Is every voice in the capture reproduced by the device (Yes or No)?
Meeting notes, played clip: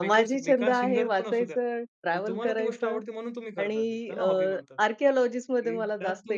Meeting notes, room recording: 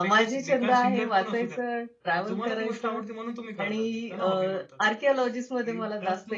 Yes